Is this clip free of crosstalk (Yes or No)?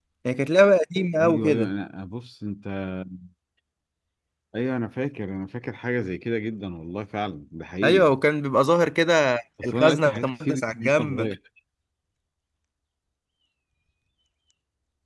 No